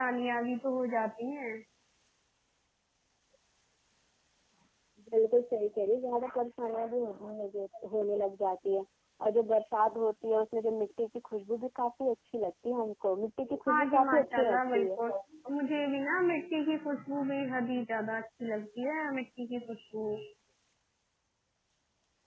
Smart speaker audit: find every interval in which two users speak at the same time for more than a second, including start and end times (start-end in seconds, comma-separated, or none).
13.7-14.9